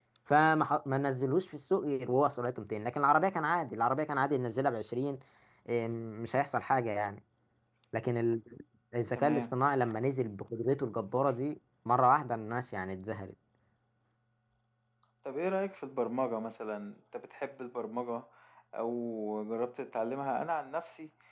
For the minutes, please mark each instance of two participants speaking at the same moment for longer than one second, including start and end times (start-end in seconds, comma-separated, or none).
none